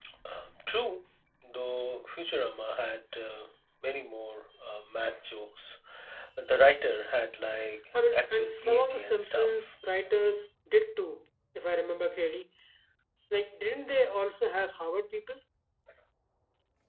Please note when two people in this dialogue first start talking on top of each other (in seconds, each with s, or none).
7.9 s